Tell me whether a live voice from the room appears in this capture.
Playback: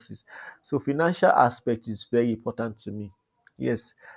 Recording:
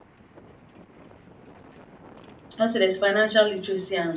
Yes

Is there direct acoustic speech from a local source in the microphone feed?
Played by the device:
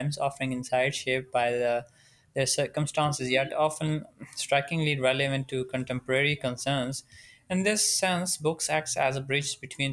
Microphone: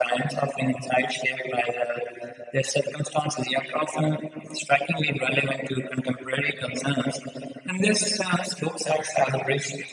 No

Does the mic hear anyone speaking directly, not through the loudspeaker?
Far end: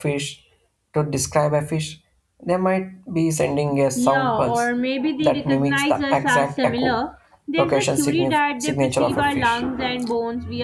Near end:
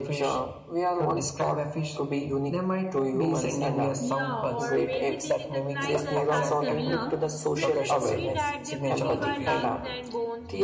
Yes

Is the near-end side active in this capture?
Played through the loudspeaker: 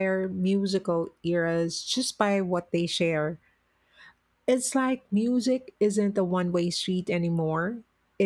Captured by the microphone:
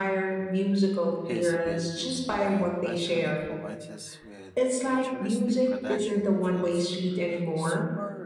Yes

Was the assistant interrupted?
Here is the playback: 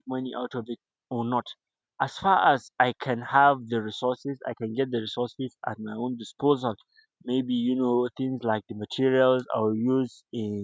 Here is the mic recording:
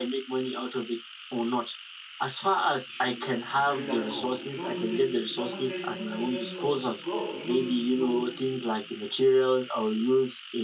Yes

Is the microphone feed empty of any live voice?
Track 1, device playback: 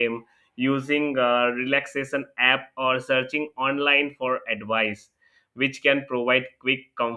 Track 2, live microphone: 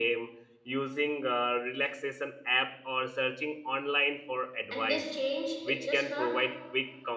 No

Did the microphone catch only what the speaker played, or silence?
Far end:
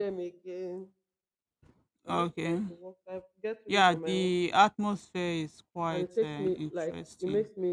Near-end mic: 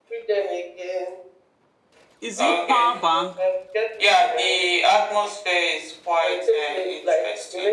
No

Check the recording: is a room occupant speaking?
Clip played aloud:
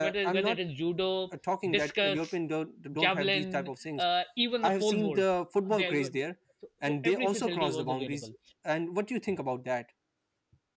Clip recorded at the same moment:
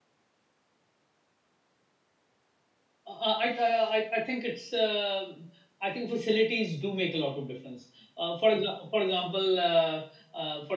Yes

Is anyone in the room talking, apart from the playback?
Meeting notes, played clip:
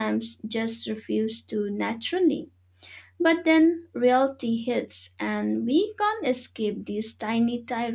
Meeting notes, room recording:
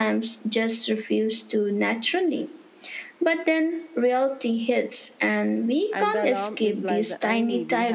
Yes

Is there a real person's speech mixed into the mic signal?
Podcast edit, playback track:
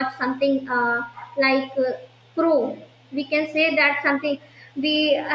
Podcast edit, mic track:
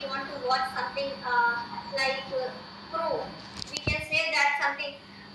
No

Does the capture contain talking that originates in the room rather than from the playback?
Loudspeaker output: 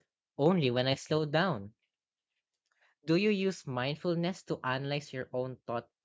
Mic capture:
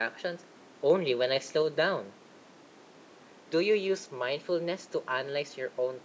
No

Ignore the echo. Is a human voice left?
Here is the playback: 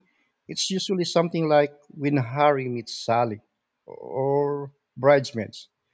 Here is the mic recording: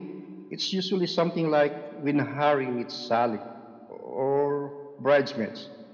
No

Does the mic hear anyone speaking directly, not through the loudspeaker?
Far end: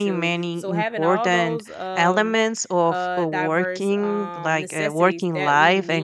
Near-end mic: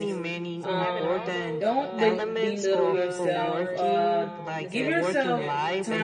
Yes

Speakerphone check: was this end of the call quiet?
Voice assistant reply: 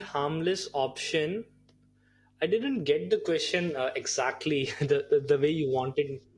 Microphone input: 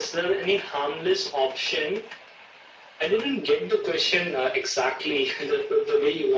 Yes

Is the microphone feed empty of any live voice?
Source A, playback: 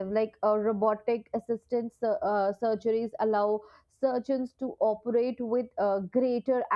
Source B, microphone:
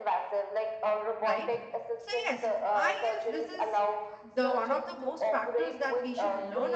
No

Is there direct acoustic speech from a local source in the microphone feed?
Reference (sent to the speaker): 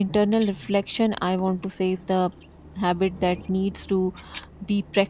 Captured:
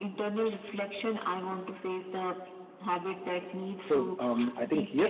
Yes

